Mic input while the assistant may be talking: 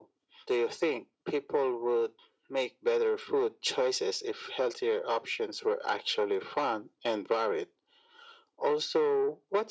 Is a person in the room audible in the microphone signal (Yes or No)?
No